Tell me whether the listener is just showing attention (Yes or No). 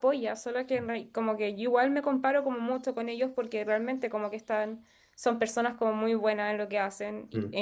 Yes